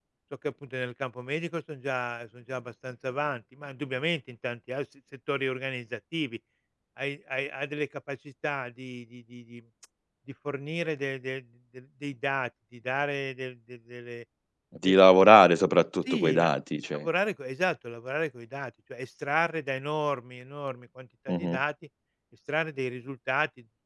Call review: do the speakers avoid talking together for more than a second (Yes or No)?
Yes